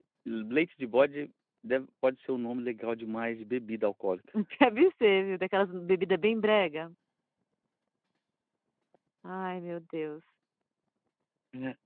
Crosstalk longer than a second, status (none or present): none